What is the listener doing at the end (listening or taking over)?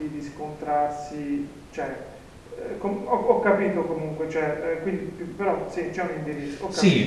taking over